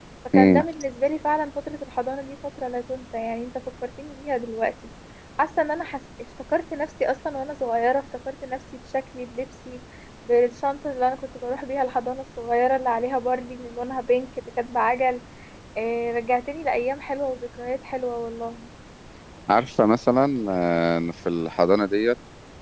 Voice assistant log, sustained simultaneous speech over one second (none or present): none